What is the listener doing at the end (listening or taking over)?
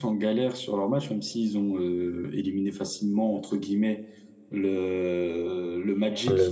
listening